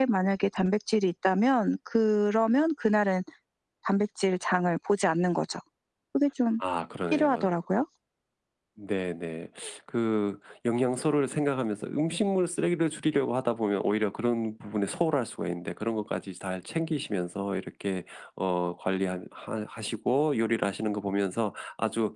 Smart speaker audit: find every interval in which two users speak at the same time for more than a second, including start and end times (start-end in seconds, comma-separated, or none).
none